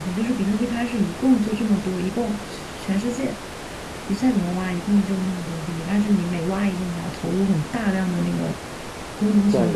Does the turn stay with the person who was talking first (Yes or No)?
Yes